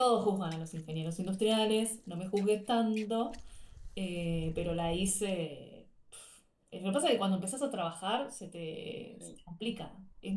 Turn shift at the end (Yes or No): No